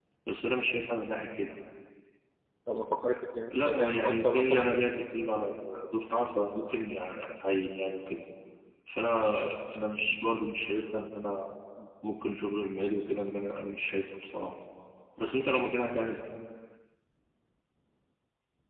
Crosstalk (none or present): present